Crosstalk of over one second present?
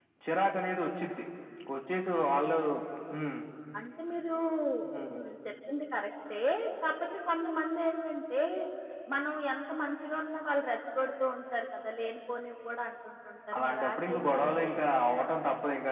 Yes, from 13.5 s

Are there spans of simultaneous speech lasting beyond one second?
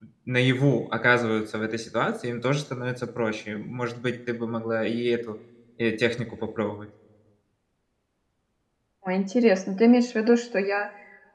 No

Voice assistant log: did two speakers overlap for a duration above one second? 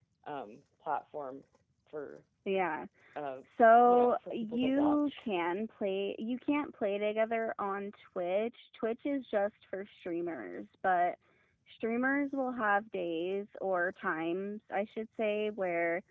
Yes, from 3.8 s

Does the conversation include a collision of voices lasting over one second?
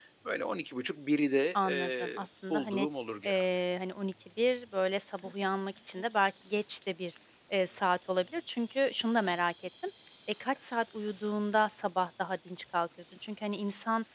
Yes, from 1.6 s

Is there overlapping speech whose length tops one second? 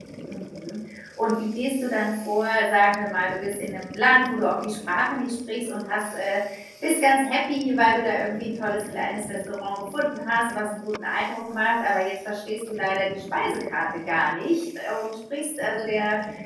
No

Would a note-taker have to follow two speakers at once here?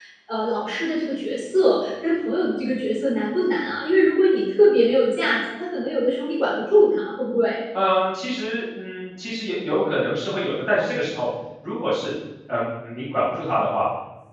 No

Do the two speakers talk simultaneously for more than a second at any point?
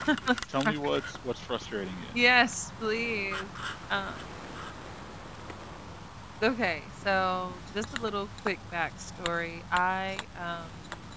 No

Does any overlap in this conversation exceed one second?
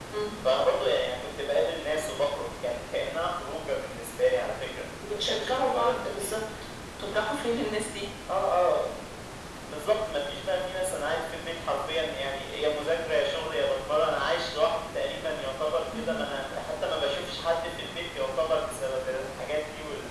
Yes, from 5.1 s

